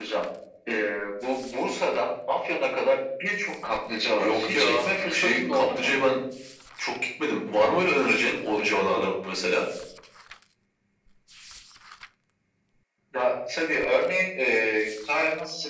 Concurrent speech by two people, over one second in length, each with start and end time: 4.2-6.0

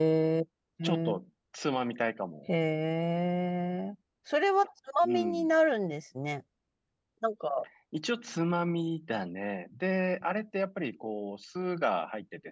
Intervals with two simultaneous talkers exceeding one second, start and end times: none

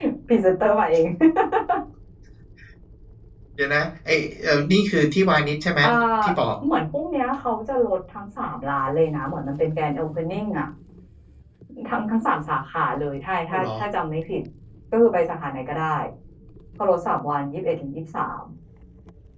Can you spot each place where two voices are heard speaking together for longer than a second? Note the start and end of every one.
none

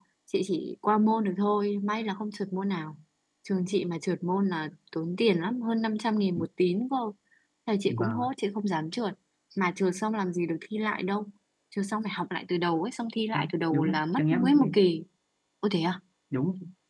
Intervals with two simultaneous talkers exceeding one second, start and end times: 13.3-14.7

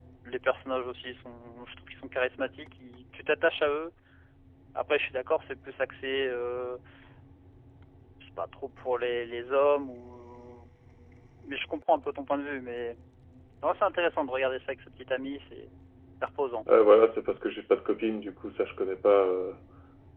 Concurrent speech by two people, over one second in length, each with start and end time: none

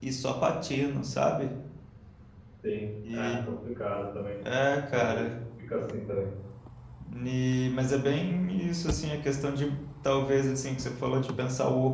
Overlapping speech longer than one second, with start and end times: none

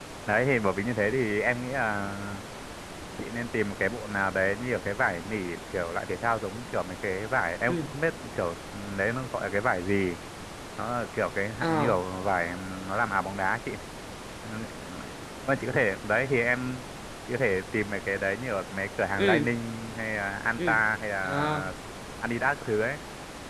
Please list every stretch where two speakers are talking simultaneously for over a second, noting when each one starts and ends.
none

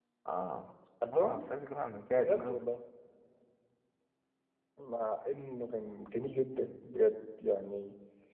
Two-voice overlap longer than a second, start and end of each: none

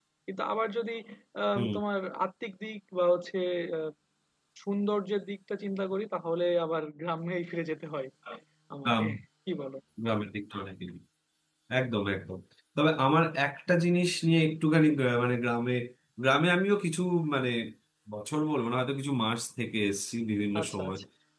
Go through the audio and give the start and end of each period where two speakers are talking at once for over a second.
none

